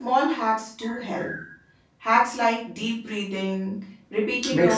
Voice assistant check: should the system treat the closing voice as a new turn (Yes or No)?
No